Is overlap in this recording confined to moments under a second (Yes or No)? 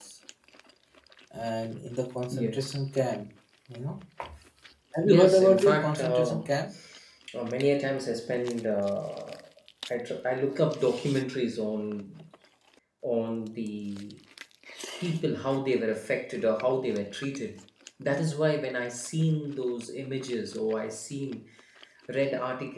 No